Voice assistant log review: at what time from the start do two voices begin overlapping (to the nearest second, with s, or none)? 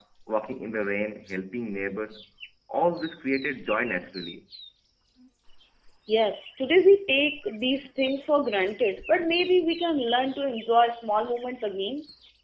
none